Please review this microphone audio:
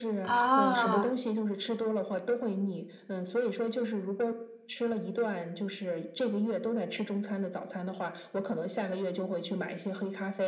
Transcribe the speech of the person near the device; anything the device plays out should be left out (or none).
啊。